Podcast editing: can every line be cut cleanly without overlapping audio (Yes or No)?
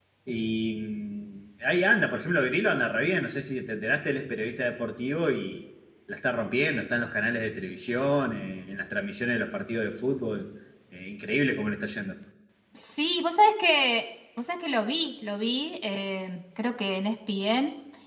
Yes